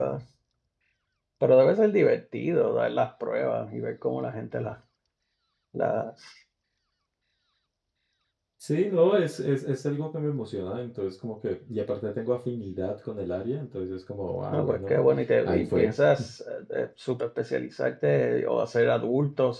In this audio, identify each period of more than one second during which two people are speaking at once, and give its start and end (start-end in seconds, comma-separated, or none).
none